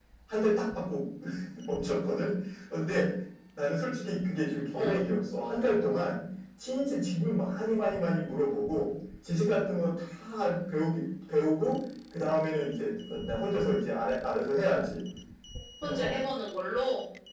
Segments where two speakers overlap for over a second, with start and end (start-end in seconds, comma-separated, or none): none